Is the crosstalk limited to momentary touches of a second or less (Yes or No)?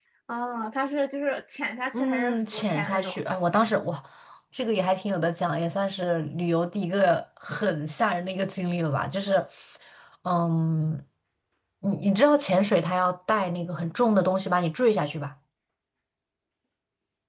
No